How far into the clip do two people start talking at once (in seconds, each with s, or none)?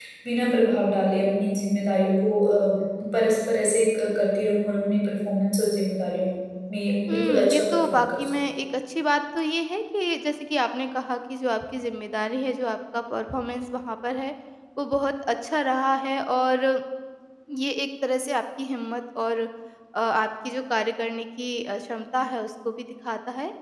7.1 s